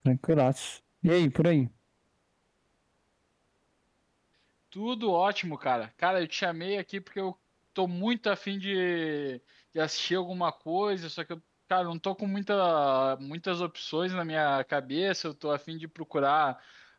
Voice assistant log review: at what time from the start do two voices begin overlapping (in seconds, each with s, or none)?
none